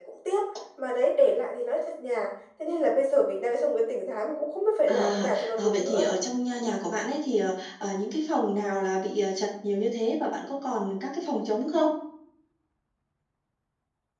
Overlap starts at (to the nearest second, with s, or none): 5 s